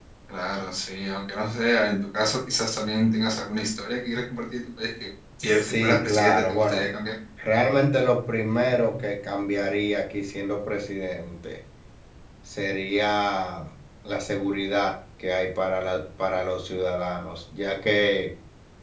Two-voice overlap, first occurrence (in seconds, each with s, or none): 5.5 s